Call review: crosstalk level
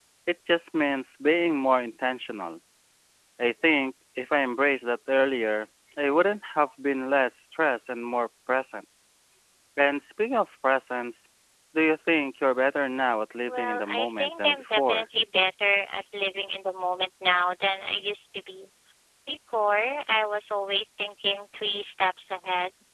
present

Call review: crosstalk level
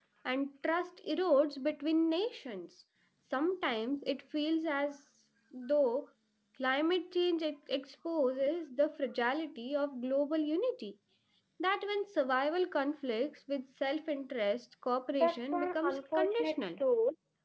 present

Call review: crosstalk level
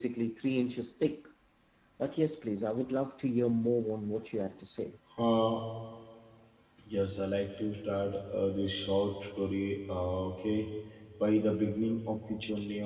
none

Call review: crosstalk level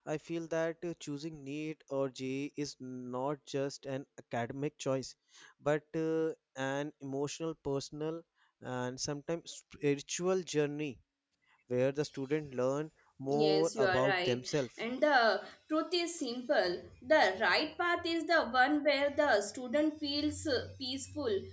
present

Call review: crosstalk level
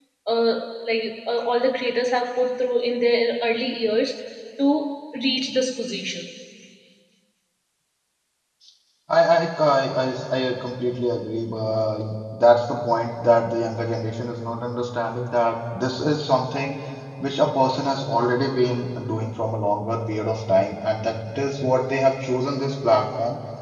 none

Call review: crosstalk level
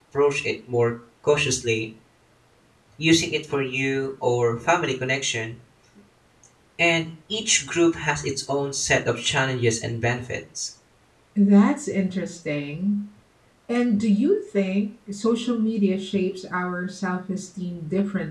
none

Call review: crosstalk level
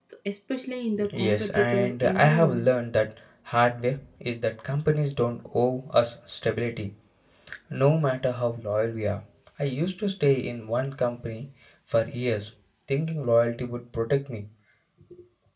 present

